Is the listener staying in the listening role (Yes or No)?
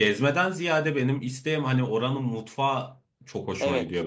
No